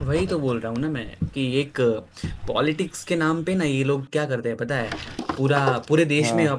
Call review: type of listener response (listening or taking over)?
listening